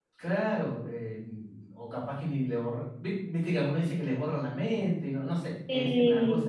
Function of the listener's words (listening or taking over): listening